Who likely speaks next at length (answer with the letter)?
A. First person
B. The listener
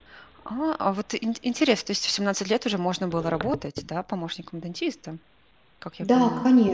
B